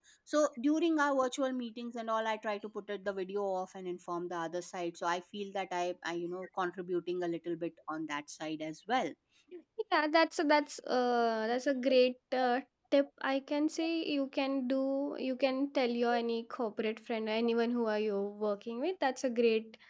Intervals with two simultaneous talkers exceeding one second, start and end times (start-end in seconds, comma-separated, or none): none